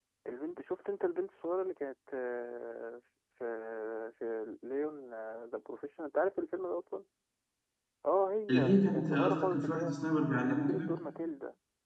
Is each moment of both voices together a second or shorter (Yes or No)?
No